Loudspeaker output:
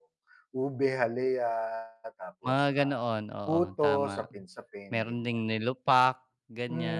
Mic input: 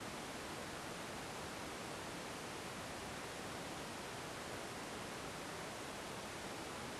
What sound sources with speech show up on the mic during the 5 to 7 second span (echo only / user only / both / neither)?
neither